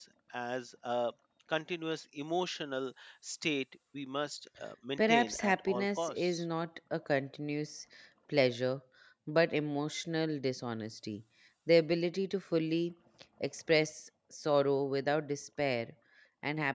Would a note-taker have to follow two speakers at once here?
Yes, from 5.0 s

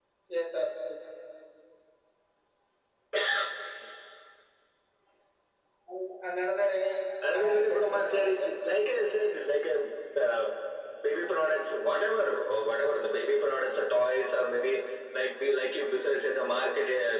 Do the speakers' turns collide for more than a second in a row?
Yes, from 7.2 s

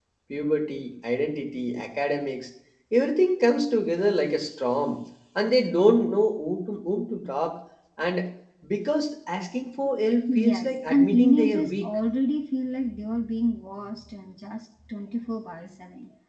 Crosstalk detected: Yes, from 10.3 s

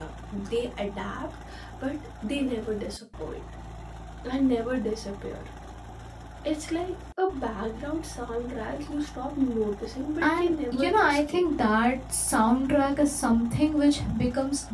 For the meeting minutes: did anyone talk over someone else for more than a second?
Yes, from 10.2 s

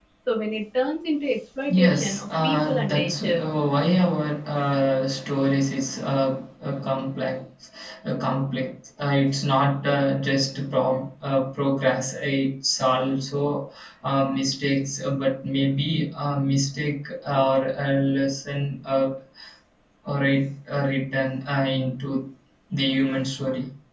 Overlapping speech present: Yes, from 1.7 s

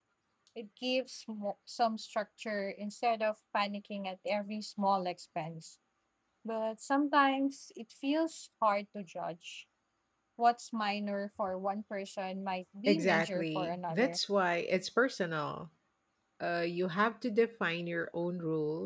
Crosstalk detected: Yes, from 12.9 s

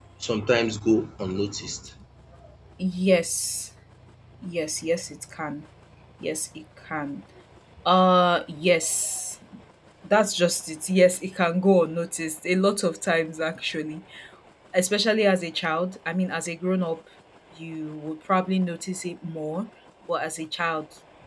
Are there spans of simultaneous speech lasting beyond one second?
No

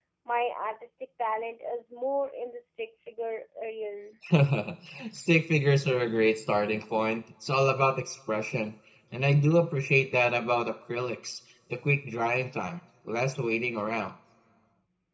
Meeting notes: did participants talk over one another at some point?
No

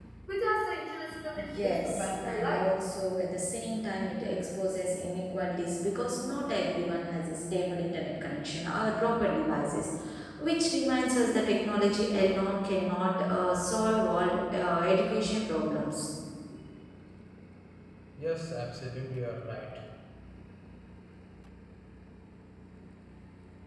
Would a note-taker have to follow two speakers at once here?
Yes, from 1.4 s

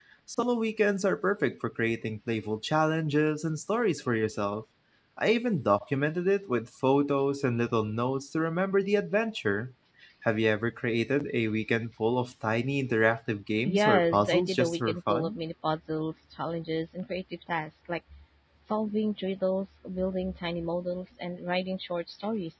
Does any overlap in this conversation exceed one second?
Yes, from 13.7 s

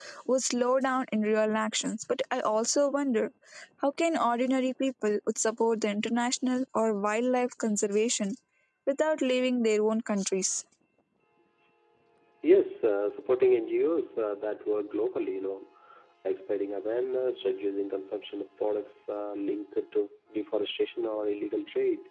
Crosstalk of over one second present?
No

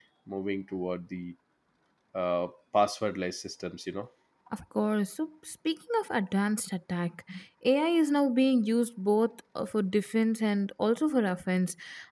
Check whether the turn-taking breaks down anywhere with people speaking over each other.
No

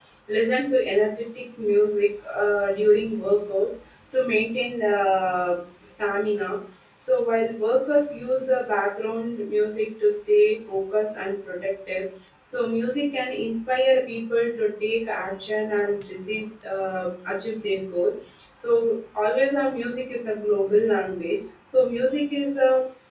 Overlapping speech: No

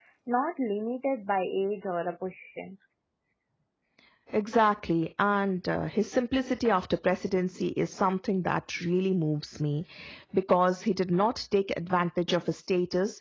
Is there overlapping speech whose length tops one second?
No

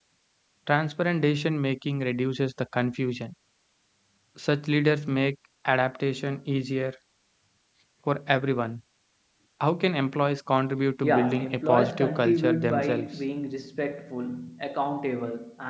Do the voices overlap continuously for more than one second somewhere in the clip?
Yes, from 11.0 s

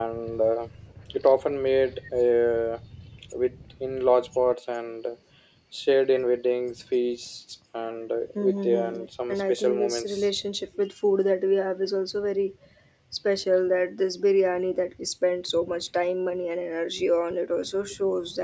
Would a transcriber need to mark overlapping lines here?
Yes, from 8.3 s

